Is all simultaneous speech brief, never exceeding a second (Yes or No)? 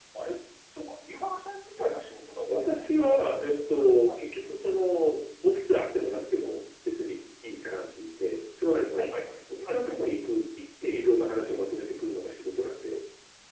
No